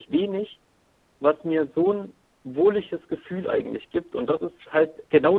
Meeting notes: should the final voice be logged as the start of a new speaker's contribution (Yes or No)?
No